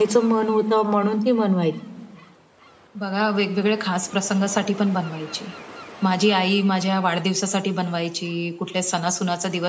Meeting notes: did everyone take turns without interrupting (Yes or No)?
Yes